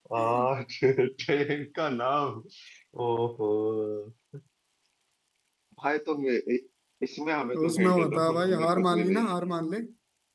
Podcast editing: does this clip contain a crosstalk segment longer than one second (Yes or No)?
Yes